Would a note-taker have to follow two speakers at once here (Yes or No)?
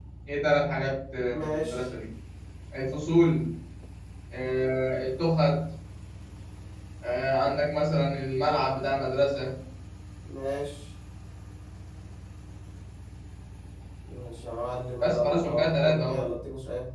Yes